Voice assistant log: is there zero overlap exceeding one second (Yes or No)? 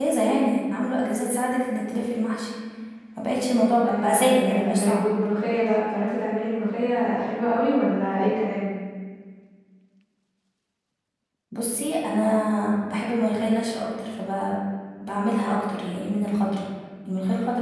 No